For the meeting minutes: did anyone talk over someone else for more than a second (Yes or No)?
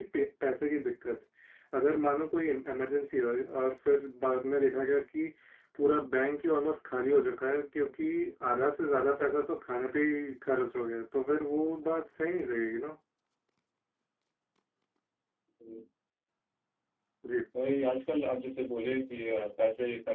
No